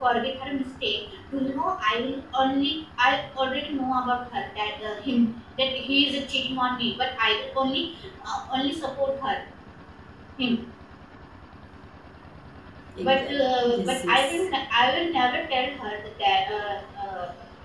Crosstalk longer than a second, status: present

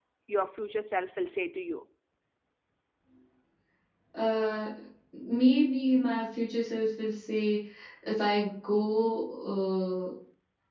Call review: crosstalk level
none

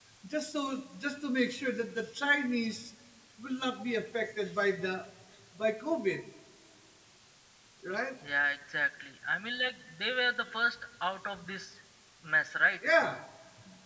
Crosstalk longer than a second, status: none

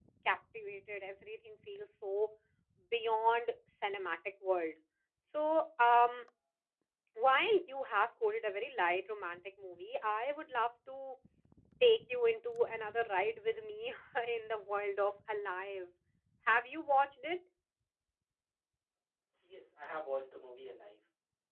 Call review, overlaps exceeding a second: none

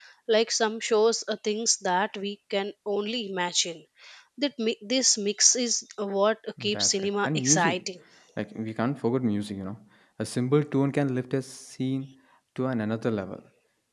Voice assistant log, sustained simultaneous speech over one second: present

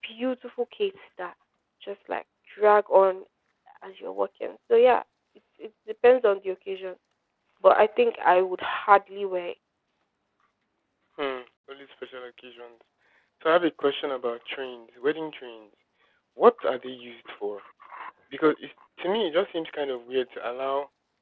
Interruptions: none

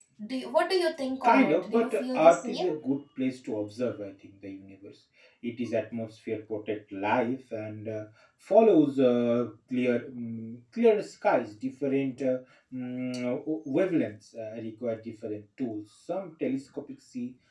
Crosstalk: present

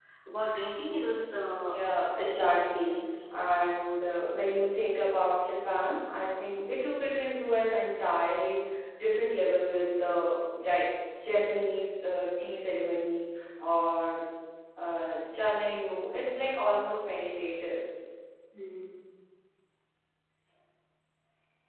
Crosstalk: present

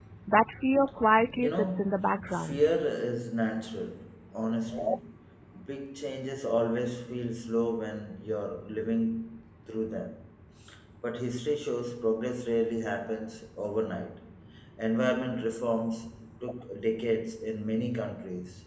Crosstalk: present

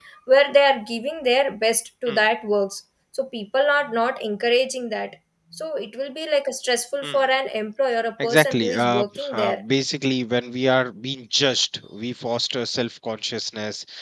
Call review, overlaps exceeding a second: present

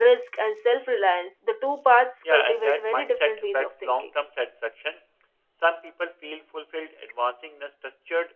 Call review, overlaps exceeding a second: present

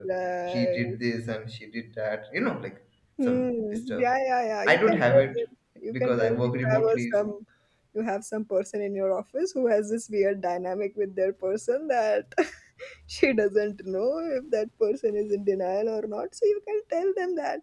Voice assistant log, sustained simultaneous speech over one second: present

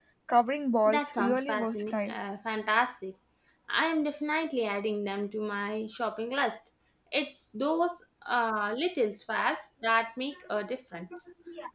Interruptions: present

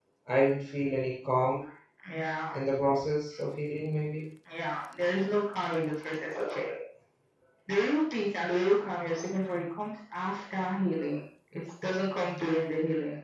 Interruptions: none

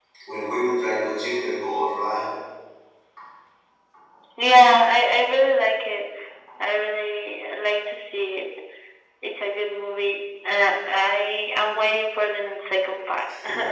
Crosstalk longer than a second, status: none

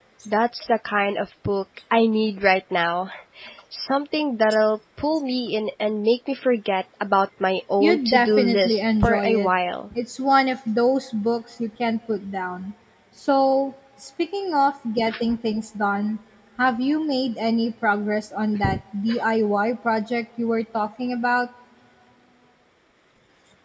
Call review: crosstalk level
present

